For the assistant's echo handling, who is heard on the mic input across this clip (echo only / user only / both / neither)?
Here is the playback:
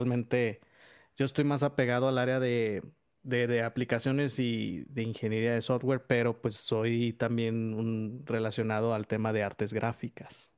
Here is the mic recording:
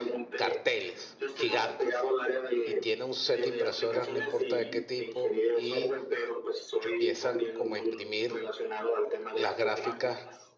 both